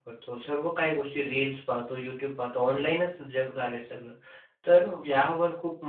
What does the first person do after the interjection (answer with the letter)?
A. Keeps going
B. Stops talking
A